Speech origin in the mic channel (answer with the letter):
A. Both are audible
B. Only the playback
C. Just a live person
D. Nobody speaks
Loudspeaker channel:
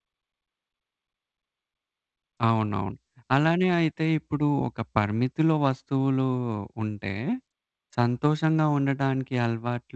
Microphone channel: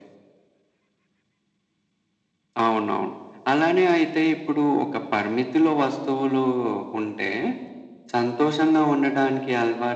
B